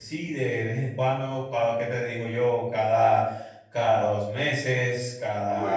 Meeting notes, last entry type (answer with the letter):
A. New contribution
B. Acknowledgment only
B